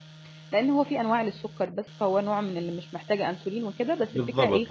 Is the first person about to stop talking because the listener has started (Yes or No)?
Yes